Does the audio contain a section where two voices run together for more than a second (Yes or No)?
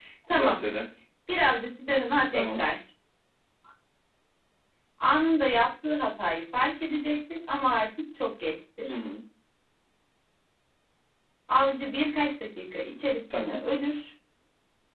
No